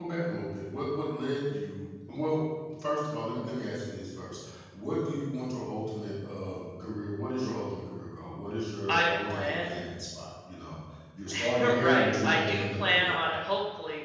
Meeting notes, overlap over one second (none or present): present